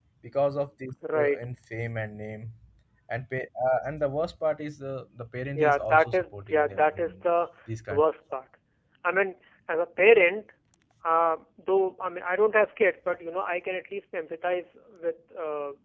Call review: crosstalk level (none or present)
present